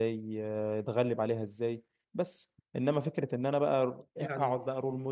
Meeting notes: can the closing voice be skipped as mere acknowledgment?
Yes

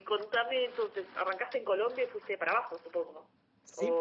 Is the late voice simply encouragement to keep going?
No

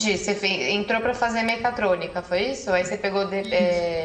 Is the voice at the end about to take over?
No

